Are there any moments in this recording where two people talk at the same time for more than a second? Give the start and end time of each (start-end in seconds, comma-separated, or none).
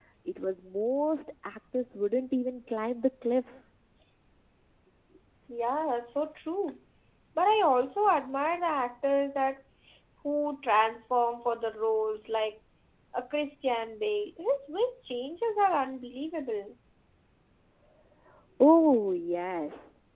none